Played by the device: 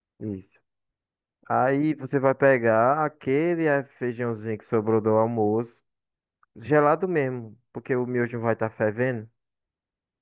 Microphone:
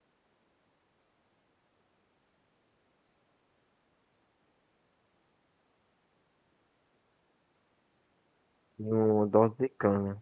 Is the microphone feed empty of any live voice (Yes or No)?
No